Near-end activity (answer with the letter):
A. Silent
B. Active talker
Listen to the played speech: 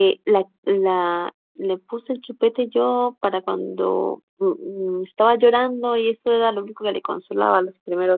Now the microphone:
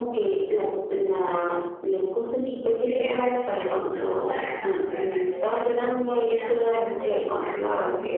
B